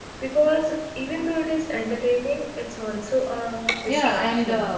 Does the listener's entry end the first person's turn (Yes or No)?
Yes